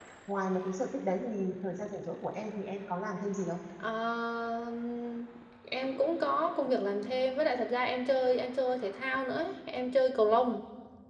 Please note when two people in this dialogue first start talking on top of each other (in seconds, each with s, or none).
none